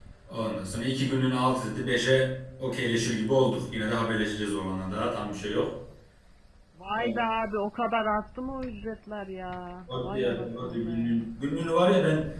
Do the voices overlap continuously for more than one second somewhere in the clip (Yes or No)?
Yes